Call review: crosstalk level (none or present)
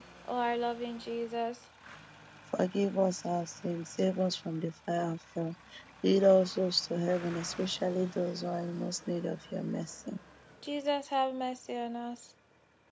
none